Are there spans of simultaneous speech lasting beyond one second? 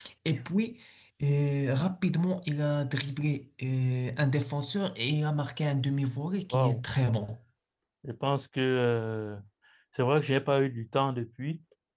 No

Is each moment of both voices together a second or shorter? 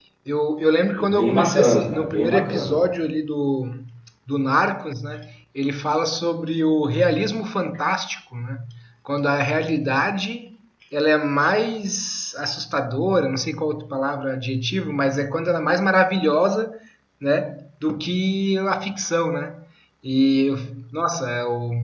No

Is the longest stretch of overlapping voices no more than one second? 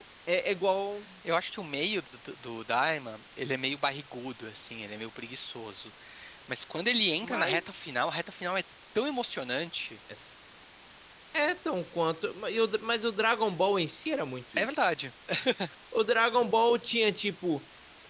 Yes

